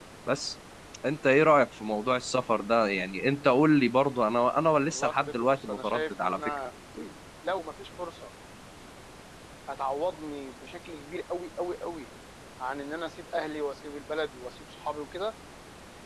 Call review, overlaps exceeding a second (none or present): present